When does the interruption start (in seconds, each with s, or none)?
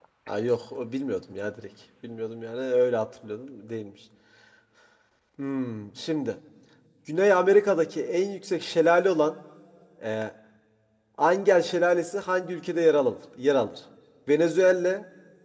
none